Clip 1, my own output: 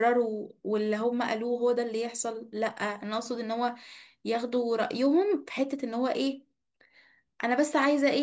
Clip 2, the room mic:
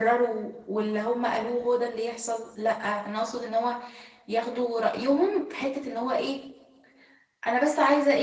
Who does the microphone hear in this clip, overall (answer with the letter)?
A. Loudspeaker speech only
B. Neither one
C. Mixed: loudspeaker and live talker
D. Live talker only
A